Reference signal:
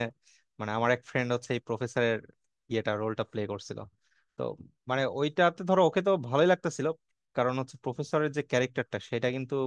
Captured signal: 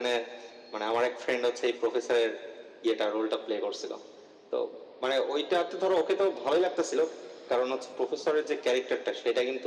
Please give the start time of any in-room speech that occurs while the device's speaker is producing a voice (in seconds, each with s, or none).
none